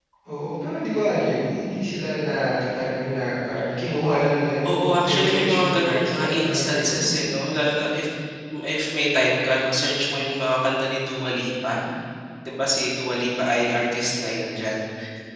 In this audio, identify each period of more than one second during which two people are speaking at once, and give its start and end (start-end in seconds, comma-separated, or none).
4.7-7.1